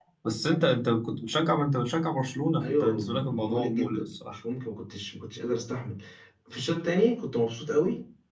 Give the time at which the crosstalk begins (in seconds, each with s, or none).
2.6 s